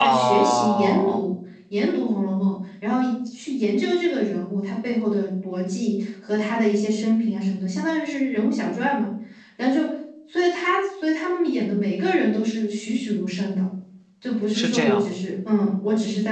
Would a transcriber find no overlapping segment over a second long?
No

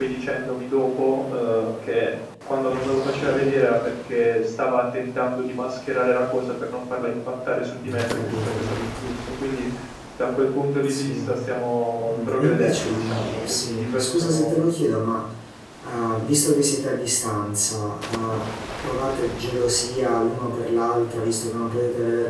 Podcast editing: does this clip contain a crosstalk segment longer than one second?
Yes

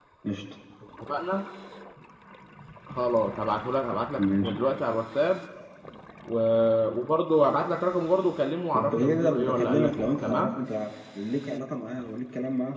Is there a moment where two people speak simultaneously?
Yes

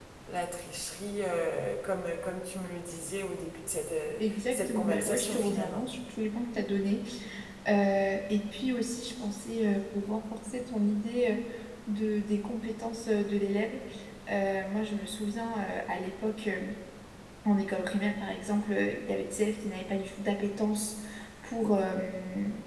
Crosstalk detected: Yes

